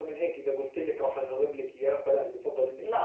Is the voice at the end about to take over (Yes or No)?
Yes